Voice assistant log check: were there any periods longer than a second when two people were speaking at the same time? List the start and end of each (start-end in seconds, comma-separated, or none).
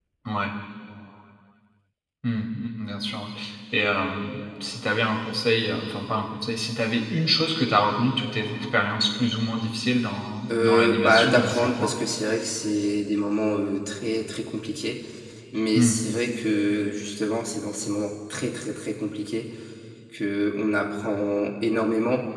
10.5-11.9